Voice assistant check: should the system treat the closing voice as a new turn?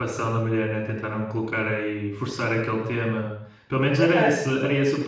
No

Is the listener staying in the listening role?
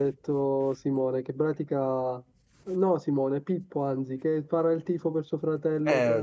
No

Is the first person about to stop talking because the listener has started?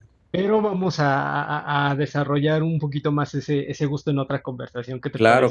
Yes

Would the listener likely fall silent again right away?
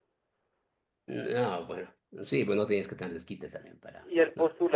No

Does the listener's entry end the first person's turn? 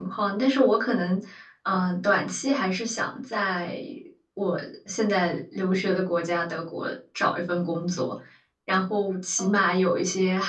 No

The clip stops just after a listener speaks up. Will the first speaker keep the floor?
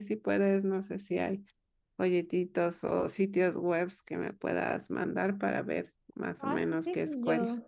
No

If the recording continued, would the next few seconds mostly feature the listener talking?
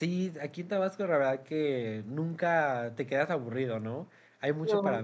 No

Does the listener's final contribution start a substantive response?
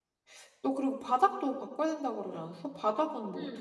Yes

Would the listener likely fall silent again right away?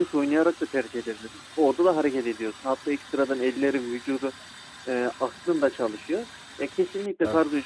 Yes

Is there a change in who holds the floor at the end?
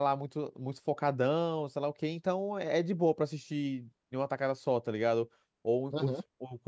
No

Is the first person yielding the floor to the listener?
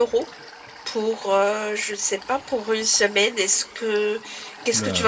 Yes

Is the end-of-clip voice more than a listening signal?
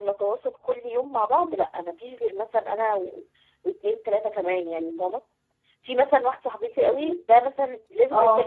No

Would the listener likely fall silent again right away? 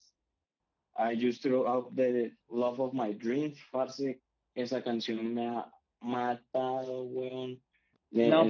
No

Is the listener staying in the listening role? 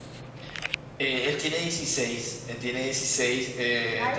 Yes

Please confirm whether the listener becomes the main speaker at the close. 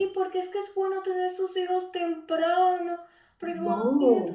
No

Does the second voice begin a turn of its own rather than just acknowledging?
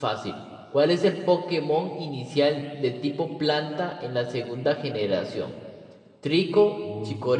No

